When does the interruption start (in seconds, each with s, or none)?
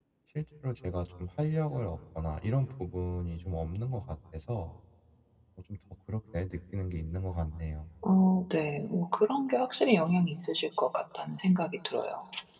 none